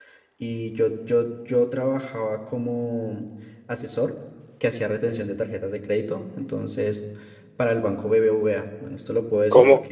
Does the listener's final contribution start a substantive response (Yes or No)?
Yes